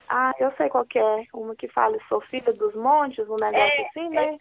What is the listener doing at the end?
taking over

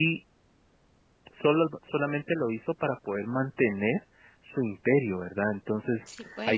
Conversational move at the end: listening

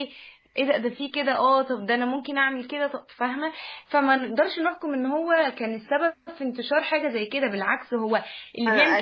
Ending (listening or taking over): taking over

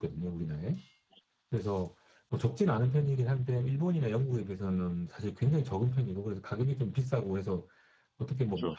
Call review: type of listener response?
listening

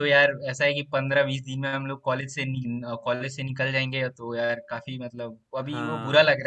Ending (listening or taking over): listening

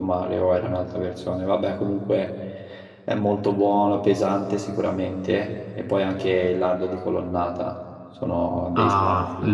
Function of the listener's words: taking over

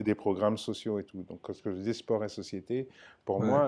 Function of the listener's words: listening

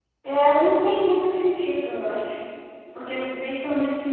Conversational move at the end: listening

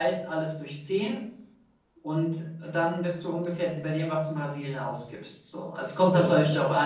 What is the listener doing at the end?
listening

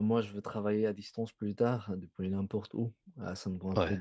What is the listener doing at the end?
listening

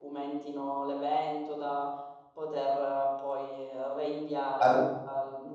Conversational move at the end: listening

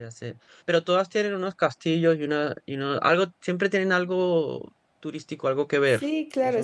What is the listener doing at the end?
taking over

